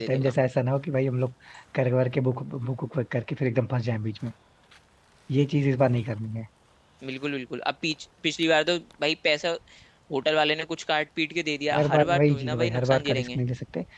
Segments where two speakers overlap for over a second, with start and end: 11.7-13.4

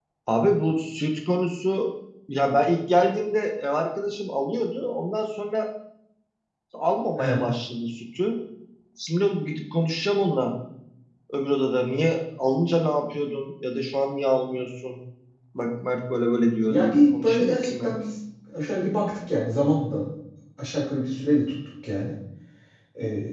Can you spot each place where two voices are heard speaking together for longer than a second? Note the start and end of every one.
16.7-18.0

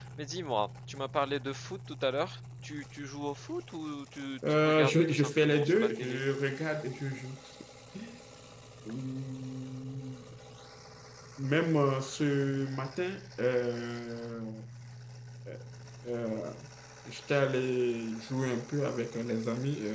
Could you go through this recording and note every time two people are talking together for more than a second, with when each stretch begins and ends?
4.5-6.2

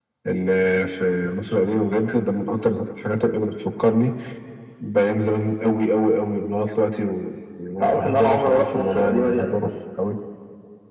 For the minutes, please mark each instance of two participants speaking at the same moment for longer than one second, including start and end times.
7.8-9.7

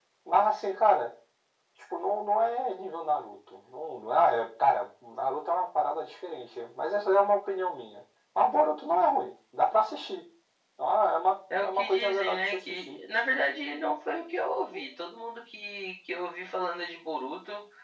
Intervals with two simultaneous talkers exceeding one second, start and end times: 11.5-13.0

